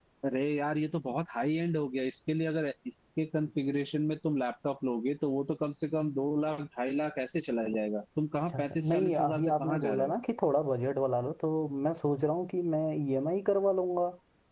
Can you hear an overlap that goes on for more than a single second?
Yes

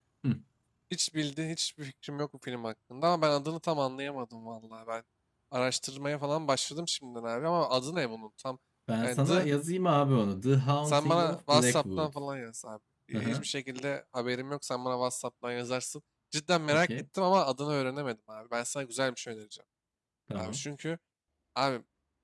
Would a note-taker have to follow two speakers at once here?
Yes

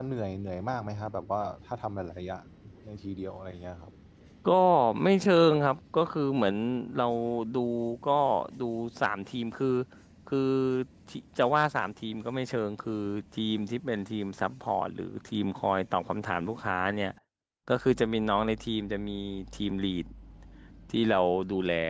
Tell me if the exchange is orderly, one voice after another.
Yes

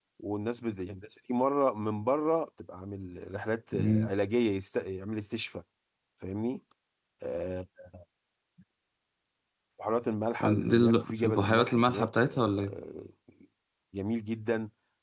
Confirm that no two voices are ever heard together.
No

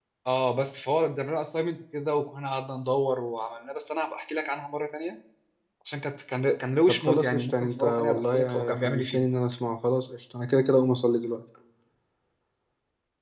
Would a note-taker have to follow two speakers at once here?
Yes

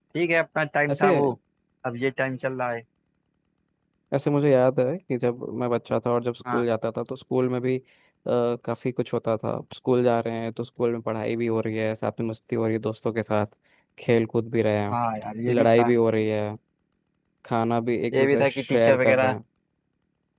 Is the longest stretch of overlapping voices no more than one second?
No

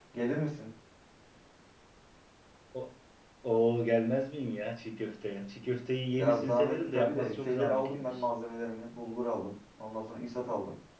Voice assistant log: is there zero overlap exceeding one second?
No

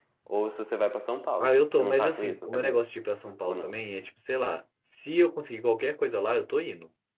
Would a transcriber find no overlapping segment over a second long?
No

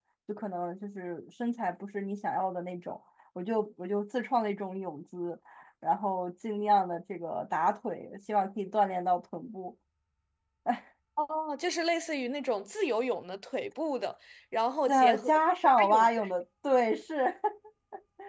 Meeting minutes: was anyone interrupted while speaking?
Yes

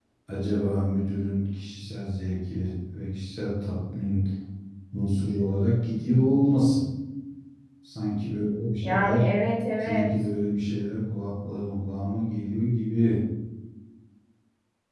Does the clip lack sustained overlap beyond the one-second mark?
Yes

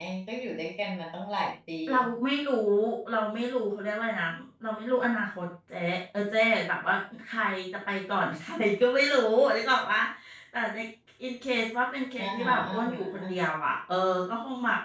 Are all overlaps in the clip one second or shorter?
No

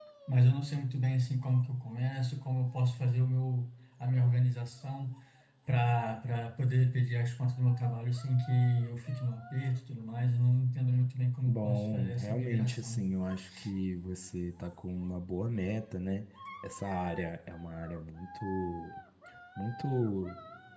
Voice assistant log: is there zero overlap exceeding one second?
No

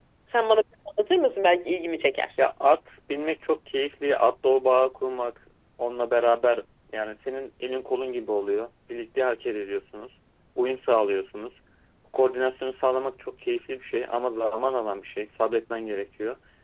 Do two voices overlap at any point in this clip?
No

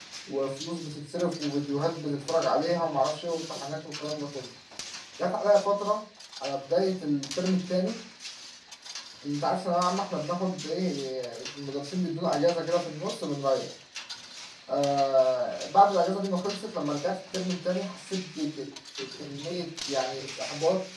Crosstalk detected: No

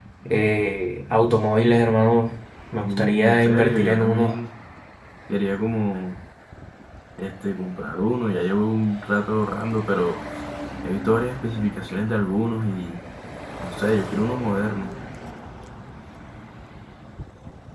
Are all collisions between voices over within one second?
No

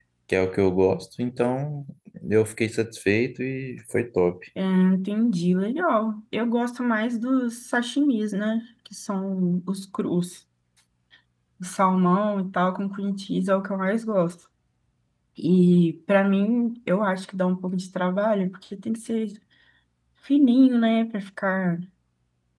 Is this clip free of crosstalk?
Yes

